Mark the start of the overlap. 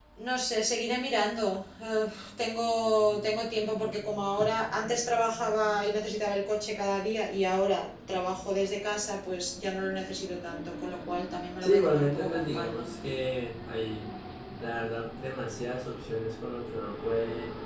12 s

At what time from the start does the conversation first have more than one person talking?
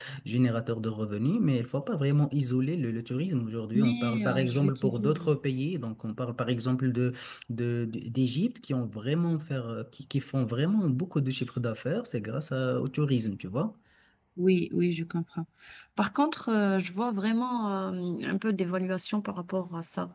4 s

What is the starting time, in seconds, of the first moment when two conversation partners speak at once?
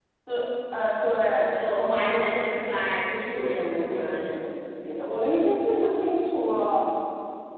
2 s

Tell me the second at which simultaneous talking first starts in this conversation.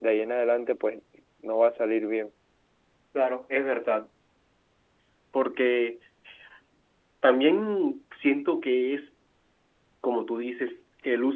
none

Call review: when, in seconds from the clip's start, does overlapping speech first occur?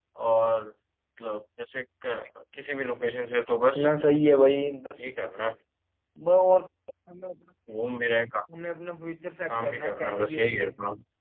9 s

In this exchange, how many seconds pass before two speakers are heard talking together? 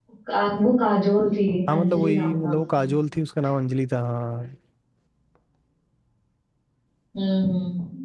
2 s

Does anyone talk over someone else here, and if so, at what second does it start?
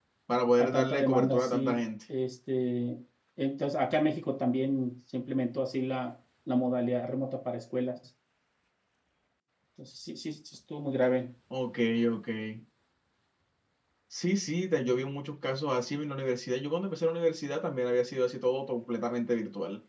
1 s

